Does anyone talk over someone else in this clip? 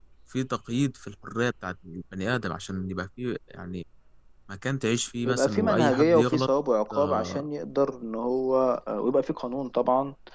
Yes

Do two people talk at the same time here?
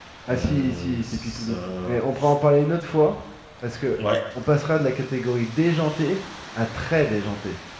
Yes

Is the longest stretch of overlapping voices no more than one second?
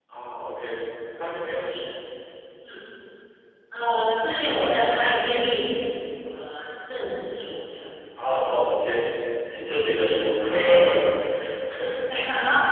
Yes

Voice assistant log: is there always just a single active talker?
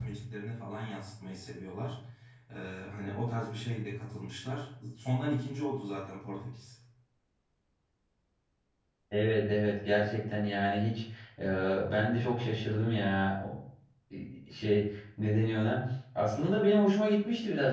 Yes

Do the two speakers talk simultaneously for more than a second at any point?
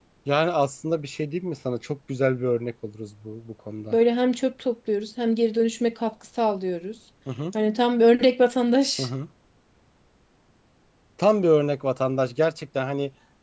No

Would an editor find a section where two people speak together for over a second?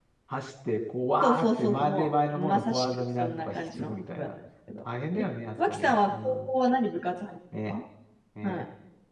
Yes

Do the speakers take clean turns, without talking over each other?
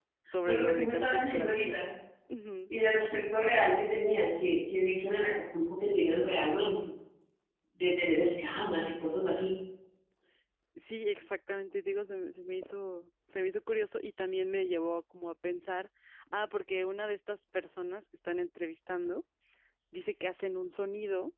No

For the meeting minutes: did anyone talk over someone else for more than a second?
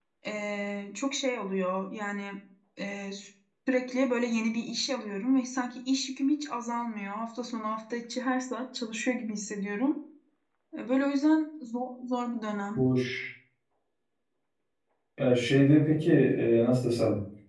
No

